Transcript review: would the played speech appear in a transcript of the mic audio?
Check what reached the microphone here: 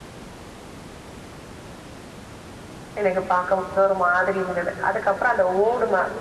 No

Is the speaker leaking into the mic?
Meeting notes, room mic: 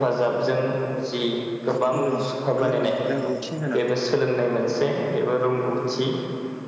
Yes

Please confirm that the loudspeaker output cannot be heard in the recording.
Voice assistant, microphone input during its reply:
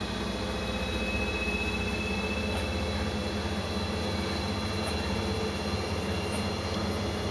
Yes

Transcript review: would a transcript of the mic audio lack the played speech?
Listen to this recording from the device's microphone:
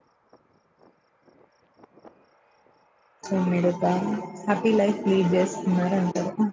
Yes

